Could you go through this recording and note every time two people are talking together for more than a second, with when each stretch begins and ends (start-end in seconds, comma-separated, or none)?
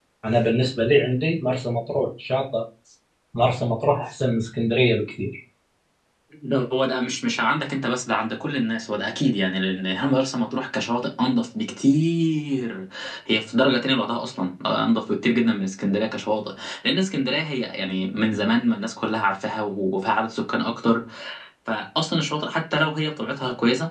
none